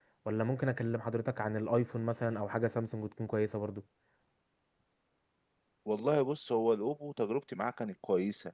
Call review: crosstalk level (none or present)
none